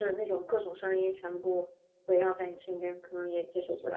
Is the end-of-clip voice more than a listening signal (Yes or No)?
Yes